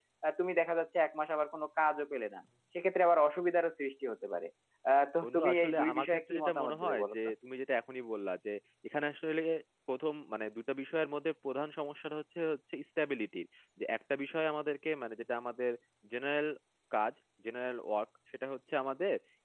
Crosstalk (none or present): present